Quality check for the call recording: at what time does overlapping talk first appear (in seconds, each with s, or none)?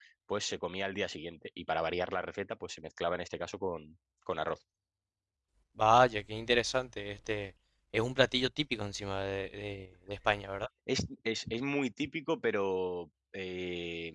none